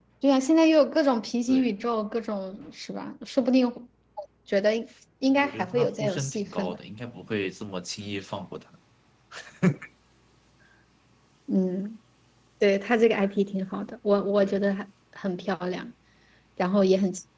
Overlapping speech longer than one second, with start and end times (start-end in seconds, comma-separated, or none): 5.3-6.8